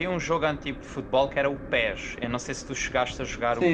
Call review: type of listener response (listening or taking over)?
taking over